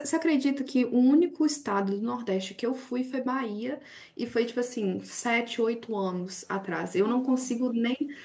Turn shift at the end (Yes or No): No